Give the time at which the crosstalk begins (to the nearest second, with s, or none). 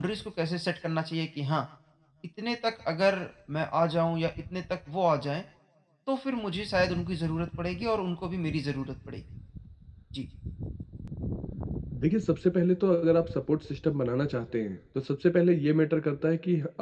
none